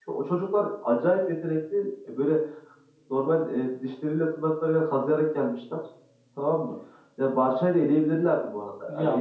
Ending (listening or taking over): taking over